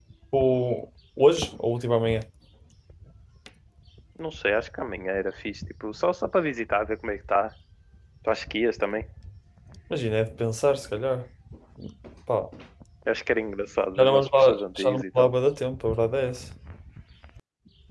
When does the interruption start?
14.0 s

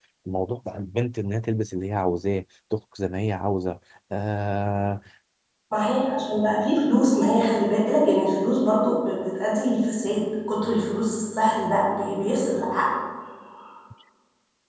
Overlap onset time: none

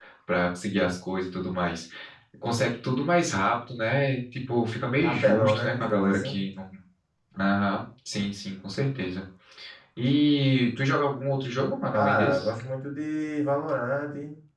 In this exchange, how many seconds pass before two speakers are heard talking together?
5.0 s

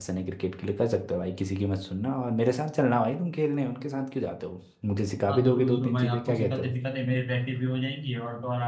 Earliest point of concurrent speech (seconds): 5.3 s

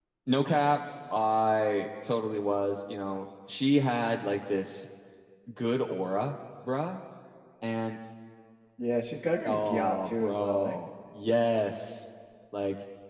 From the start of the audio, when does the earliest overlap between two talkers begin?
9.4 s

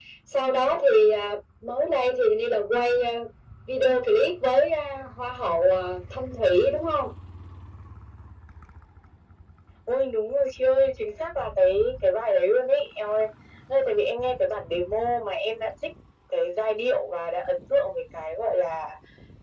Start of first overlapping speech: none

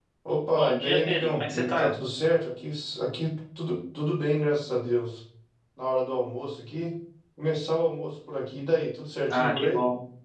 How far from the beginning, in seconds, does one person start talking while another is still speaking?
0.5 s

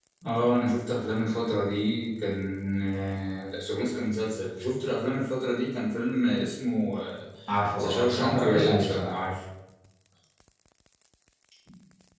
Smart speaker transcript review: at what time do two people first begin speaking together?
7.8 s

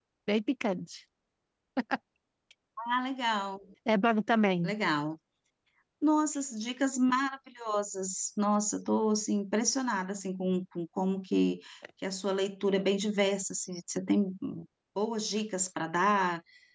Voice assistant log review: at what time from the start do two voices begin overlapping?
none

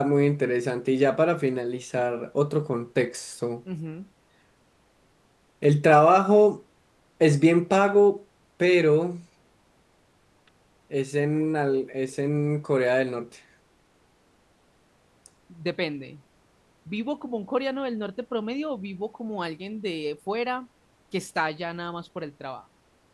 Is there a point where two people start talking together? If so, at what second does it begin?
none

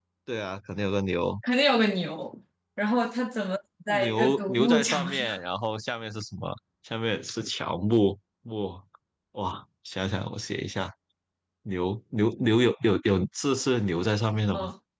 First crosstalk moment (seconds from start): 3.9 s

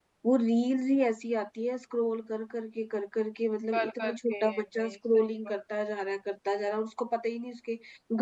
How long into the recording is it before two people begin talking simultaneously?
3.7 s

